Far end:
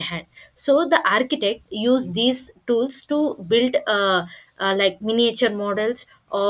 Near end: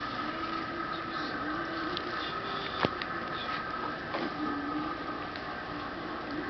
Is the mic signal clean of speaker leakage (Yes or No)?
Yes